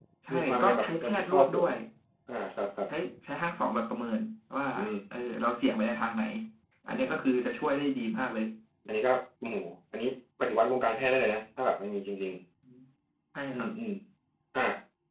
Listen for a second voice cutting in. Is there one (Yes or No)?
Yes